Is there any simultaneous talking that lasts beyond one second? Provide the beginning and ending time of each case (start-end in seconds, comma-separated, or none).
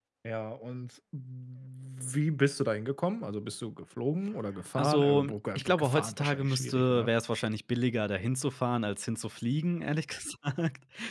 4.8-7.1